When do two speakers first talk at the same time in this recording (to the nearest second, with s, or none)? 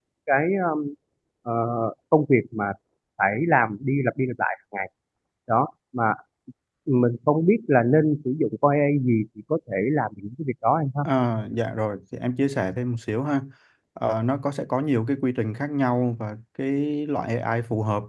none